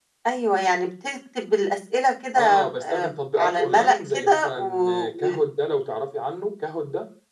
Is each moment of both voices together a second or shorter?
No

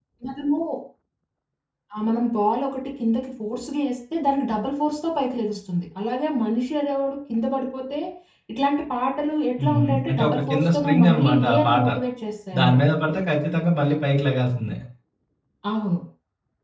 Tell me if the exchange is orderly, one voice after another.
No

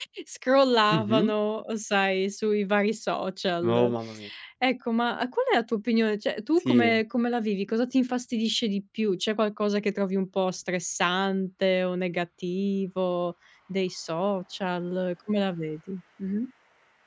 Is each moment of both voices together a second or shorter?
Yes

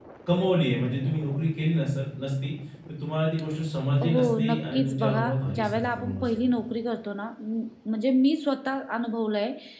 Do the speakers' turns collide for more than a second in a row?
Yes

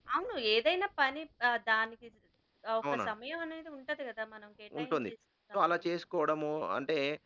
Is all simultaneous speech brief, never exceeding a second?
Yes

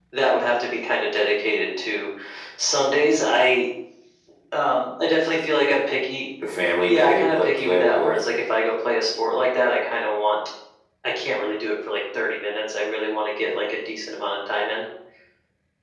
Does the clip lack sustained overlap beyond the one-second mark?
No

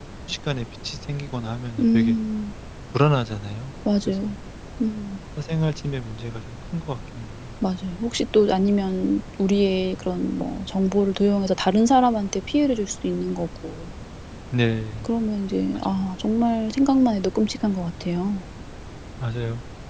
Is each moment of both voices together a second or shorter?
Yes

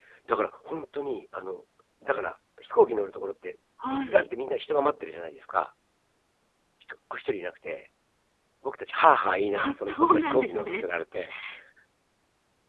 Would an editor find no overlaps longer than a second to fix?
No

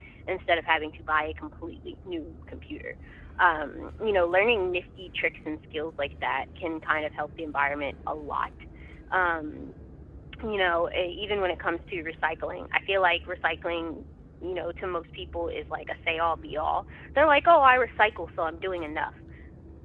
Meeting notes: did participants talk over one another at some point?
No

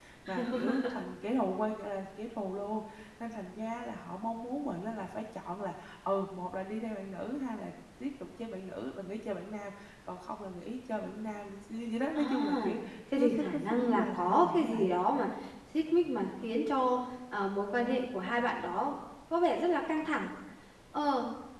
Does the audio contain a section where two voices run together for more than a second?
Yes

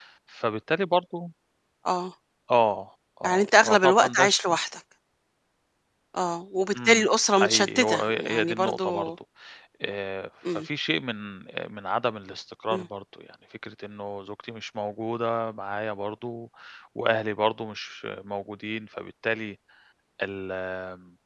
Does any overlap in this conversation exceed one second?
Yes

